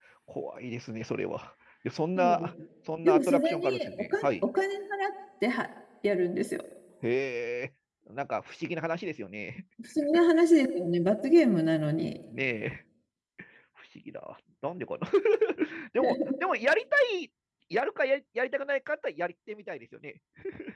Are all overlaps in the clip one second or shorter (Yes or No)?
No